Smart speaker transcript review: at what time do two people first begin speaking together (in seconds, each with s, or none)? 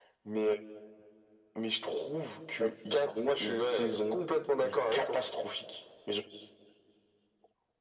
2.6 s